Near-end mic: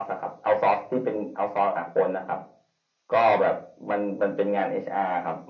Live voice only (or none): none